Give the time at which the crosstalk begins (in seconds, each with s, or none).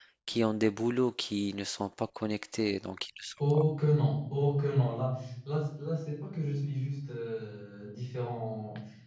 none